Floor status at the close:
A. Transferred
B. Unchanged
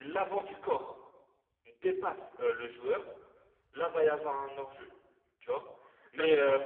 B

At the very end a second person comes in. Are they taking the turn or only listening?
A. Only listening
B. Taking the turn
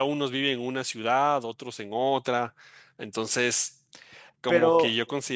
A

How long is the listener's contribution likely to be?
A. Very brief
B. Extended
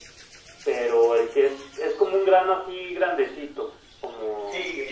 B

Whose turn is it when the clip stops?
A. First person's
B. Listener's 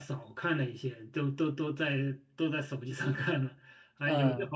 A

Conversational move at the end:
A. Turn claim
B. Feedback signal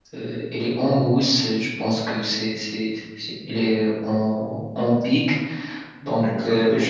B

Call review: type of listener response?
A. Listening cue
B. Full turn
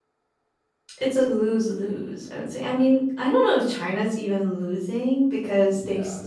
A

